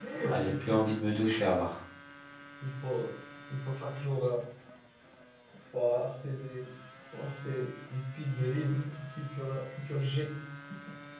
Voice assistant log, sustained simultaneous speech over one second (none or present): none